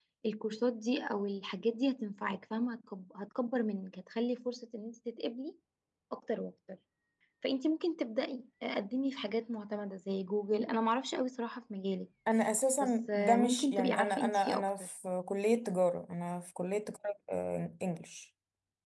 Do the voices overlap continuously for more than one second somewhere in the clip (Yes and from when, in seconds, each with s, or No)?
Yes, from 12.8 s